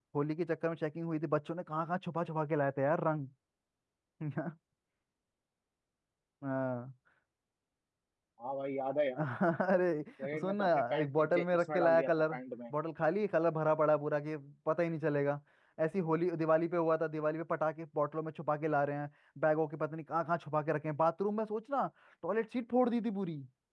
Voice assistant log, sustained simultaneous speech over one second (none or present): present